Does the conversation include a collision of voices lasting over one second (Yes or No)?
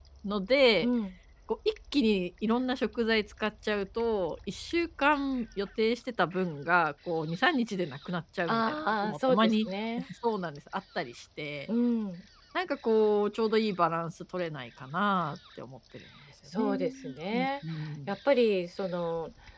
Yes